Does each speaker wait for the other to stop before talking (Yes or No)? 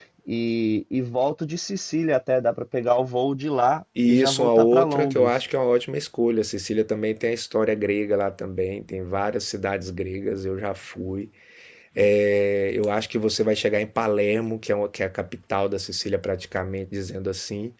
No